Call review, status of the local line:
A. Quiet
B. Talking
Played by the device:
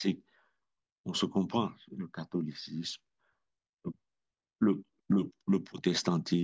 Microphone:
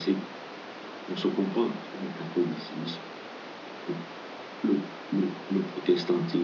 A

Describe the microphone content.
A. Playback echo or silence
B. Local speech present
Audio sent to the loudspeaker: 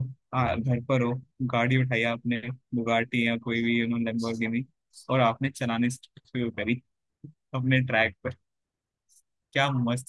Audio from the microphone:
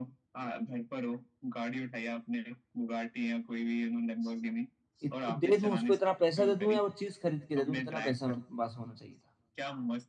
B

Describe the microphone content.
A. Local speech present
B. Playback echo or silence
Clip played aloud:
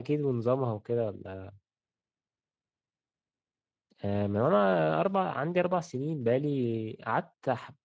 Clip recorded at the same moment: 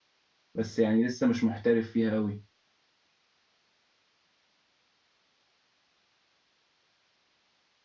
A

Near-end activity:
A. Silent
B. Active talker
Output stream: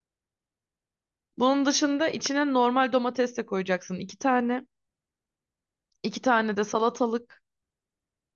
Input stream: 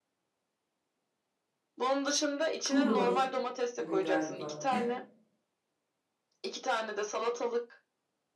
B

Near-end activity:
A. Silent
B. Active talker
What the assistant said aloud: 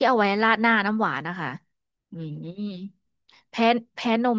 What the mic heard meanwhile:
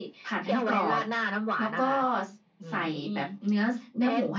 B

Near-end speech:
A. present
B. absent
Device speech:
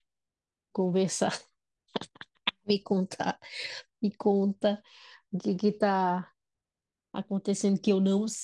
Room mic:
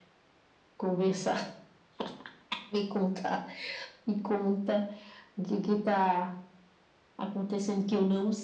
B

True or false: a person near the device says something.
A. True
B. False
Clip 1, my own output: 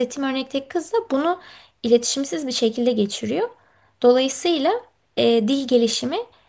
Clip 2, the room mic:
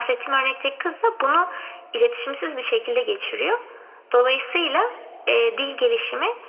B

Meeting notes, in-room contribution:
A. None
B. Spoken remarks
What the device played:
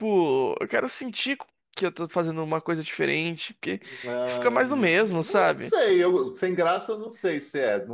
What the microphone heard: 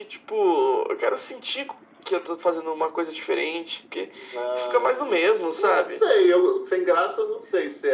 A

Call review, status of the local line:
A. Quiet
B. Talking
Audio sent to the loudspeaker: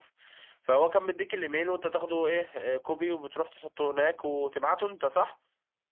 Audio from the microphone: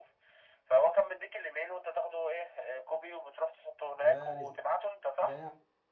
B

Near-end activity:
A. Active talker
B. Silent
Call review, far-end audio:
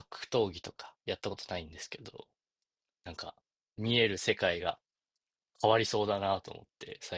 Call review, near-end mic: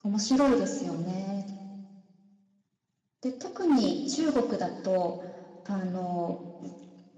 A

